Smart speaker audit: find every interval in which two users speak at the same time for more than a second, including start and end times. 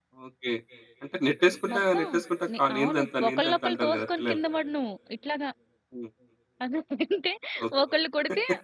2.6-4.4

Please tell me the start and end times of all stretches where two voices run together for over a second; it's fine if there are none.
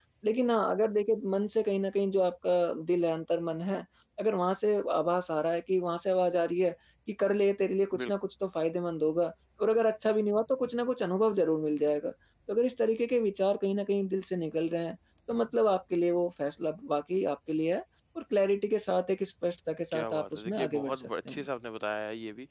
19.9-21.5

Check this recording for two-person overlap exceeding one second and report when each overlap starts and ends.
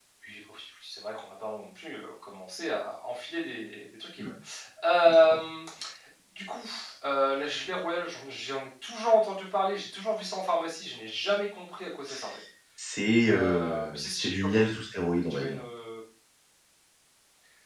13.3-14.6

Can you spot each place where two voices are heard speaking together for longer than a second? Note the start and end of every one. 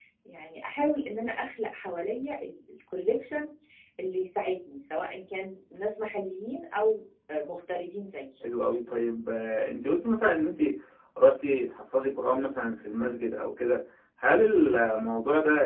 none

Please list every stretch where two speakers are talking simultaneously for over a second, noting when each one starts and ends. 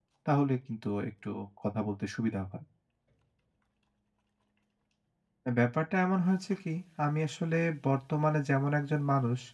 none

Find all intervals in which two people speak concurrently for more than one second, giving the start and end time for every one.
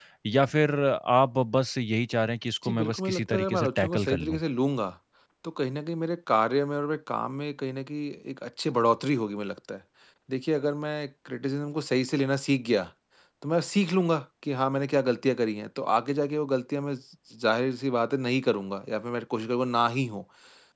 2.6-4.4

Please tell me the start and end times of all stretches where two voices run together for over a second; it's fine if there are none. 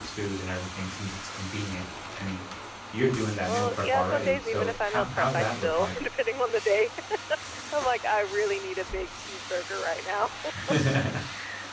3.5-5.9

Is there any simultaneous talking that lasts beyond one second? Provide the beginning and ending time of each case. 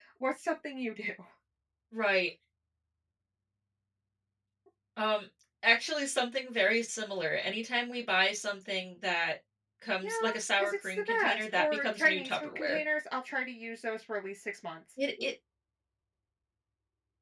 10.6-12.8

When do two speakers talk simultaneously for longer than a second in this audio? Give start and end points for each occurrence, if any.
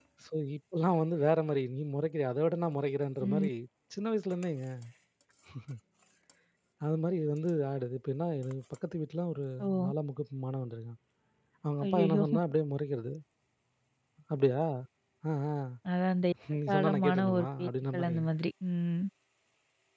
16.7-18.3

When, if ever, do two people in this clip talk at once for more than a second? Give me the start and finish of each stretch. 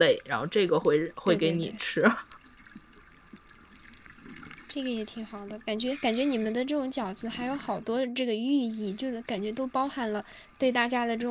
none

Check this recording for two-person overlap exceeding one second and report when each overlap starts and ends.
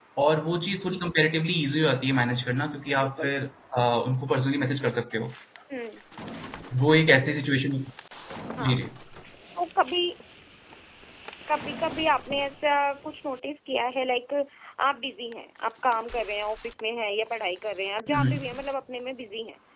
none

